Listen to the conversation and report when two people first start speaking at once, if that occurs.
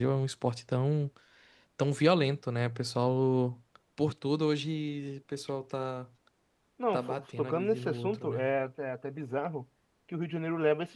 7 s

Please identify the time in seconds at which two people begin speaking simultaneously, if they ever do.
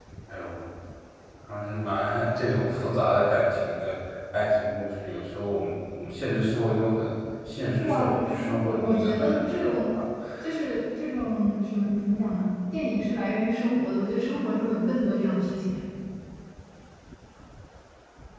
8 s

